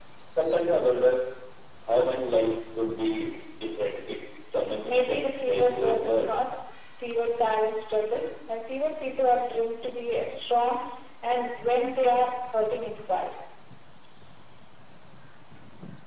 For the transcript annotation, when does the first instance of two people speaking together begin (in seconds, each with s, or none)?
4.8 s